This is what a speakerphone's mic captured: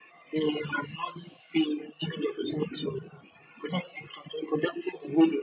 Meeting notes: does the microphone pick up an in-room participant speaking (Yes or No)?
No